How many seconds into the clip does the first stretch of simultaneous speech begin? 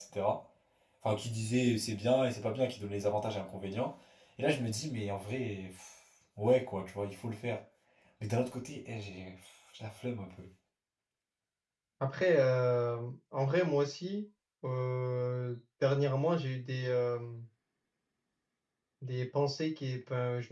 none

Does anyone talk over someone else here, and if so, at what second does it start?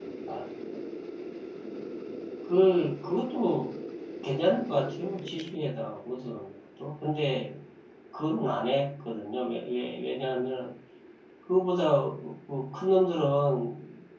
none

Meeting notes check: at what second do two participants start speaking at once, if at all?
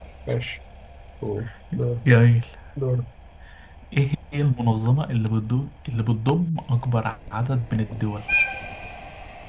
none

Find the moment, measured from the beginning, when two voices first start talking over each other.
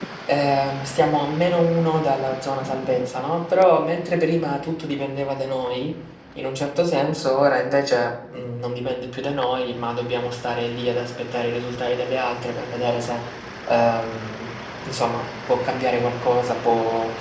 none

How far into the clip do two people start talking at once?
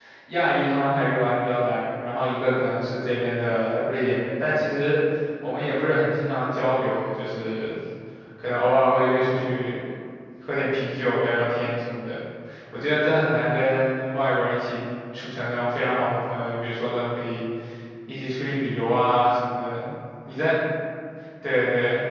none

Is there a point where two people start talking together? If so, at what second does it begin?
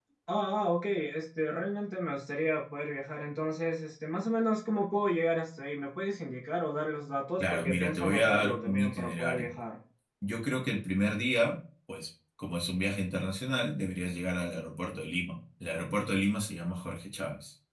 7.4 s

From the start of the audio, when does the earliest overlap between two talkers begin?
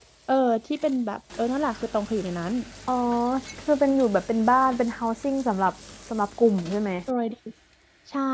none

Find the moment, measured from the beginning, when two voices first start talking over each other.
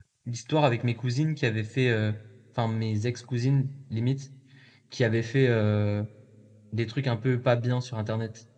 none

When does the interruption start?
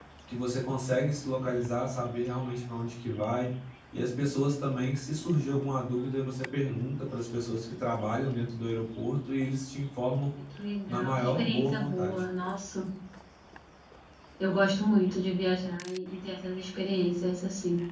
10.9 s

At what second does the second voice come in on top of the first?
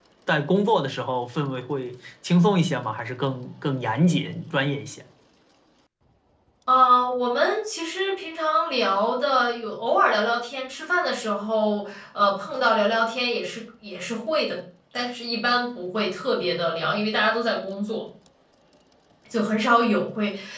none

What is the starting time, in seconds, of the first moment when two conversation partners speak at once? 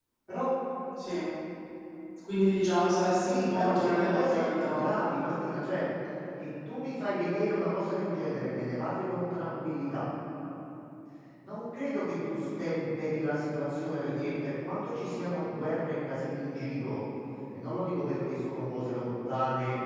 3.2 s

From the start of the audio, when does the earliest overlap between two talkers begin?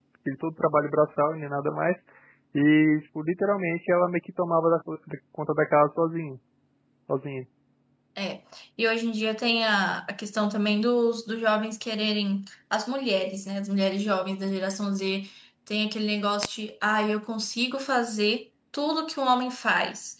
none

